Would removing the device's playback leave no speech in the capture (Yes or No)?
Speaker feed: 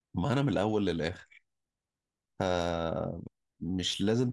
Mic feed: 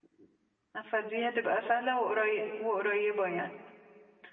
No